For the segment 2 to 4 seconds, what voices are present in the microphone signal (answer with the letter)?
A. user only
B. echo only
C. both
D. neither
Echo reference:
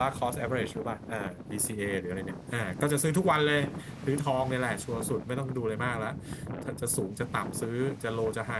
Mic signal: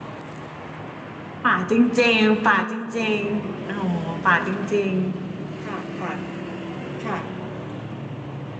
A